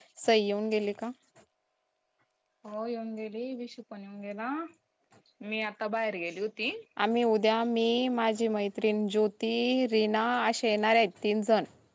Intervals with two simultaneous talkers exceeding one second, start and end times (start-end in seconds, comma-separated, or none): none